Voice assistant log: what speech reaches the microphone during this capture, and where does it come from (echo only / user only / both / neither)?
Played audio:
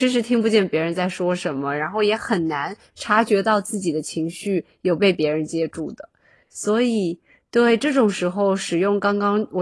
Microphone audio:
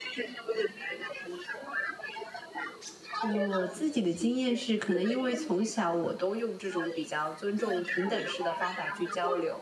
both